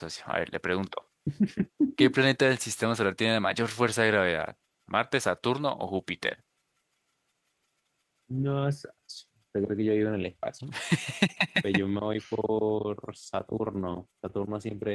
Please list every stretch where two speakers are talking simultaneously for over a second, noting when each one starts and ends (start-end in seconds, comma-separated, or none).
none